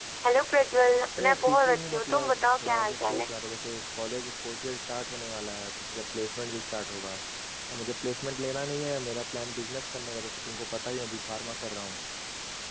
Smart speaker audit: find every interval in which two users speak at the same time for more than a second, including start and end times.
1.2-3.3

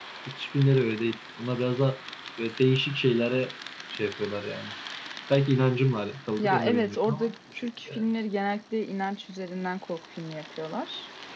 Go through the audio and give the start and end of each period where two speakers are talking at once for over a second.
6.4-8.0

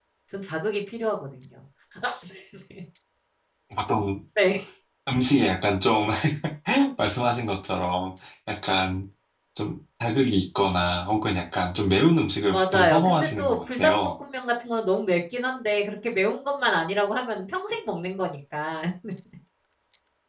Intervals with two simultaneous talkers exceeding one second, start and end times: 12.5-13.9

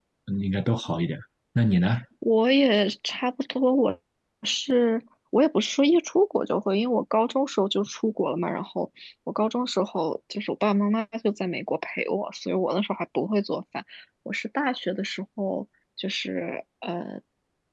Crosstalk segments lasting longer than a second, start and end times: none

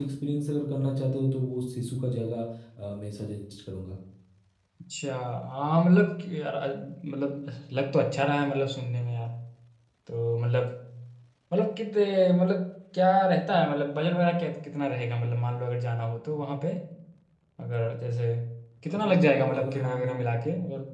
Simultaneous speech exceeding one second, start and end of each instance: 18.9-20.1

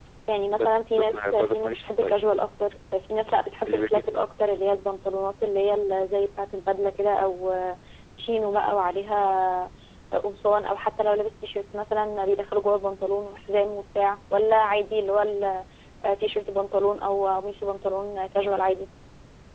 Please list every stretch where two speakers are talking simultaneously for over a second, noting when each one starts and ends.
0.6-2.2

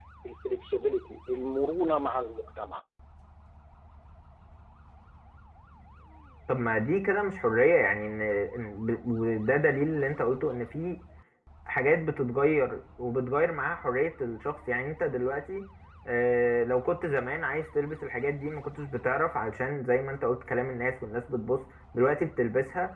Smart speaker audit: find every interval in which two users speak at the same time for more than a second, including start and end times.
none

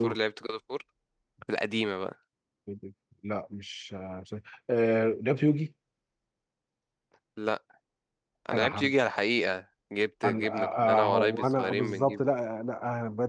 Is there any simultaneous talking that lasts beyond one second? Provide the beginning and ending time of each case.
10.2-12.2

